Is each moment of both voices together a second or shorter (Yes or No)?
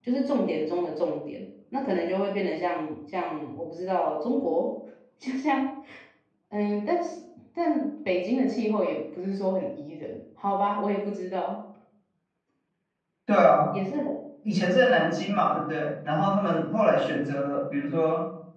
Yes